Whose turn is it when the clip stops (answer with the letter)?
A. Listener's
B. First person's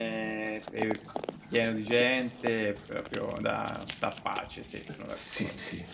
A